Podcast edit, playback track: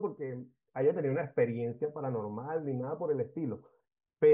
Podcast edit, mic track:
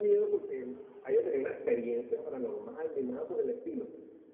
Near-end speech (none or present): none